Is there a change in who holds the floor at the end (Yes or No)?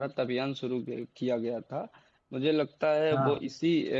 No